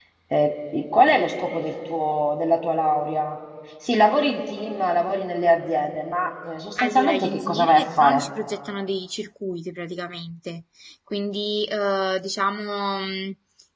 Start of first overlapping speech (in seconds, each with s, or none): 6.8 s